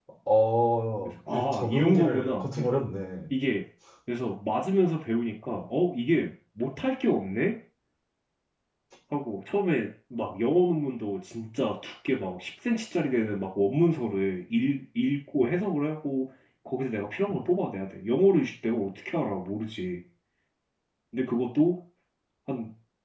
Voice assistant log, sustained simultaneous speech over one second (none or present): present